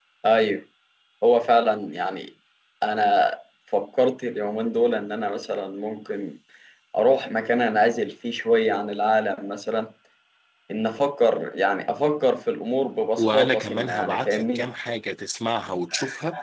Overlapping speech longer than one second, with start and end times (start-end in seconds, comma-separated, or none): 13.2-14.7